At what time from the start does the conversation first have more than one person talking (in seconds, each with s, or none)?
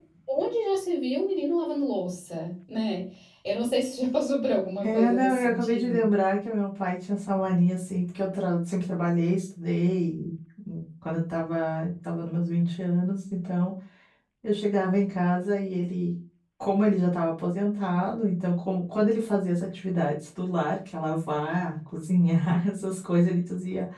4.8 s